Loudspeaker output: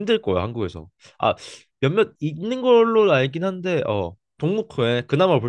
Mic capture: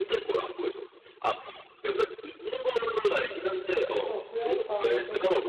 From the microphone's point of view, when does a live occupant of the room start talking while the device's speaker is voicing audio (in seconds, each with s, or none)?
4.0 s